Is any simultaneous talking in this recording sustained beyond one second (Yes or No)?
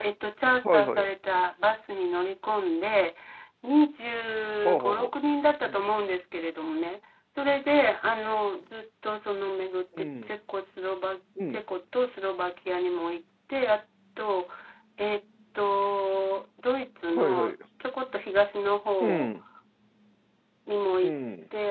No